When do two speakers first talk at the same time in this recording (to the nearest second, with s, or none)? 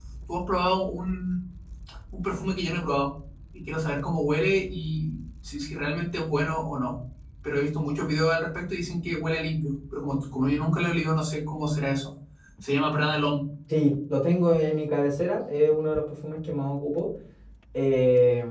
none